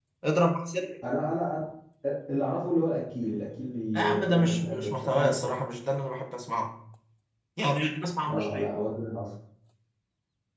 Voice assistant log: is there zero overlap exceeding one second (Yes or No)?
No